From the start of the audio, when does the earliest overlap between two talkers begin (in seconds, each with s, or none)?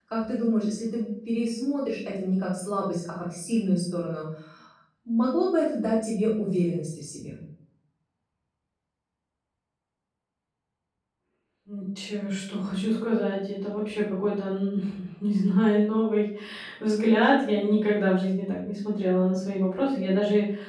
none